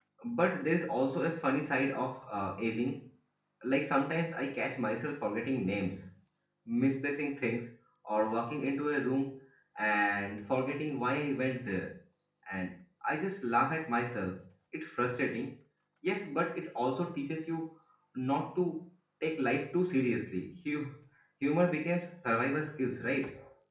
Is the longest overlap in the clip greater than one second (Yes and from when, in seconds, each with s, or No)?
No